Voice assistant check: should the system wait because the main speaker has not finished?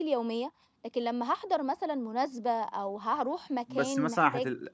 No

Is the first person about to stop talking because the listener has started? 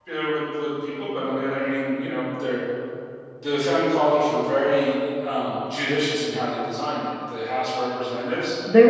No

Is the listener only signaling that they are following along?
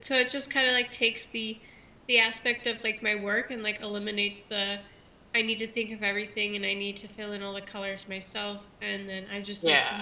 Yes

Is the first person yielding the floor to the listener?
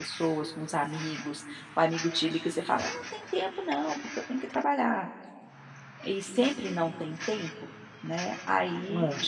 No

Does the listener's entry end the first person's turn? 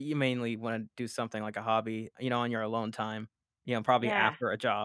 No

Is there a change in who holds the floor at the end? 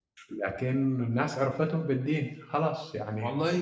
Yes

